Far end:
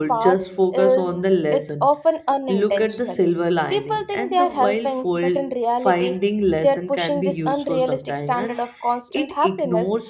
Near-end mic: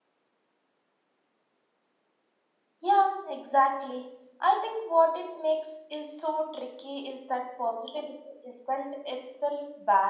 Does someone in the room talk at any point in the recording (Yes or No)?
Yes